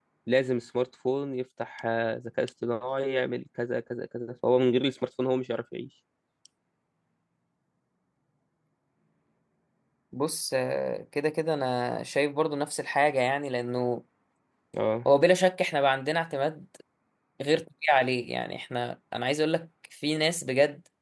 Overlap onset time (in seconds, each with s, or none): none